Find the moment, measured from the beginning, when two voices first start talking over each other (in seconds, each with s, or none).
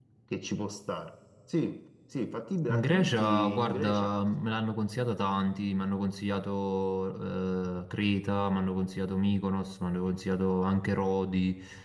2.7 s